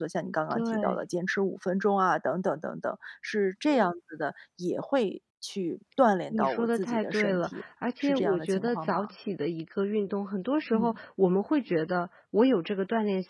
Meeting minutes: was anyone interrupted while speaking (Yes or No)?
Yes